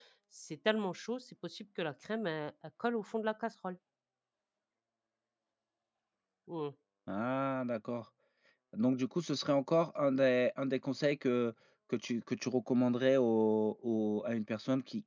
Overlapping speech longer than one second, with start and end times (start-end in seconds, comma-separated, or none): none